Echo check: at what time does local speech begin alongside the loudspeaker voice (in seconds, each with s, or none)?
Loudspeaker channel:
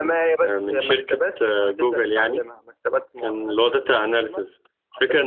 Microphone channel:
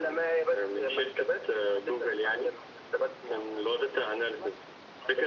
none